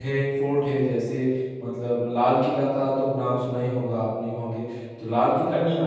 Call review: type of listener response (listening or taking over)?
listening